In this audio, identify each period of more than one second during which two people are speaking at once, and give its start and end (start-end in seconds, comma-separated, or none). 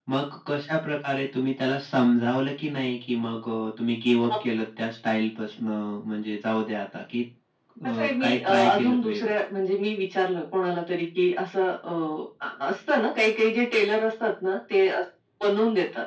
8.0-9.3